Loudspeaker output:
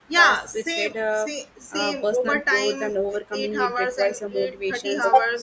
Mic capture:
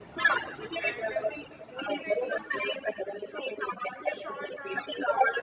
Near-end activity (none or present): present